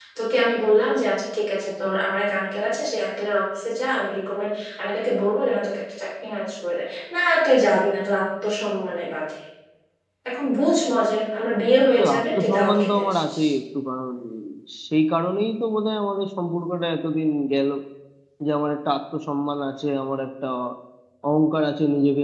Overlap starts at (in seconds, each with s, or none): 12.0 s